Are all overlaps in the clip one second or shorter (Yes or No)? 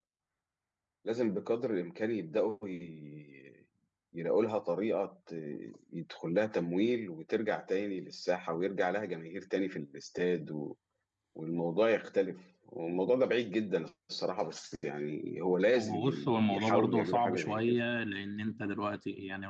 No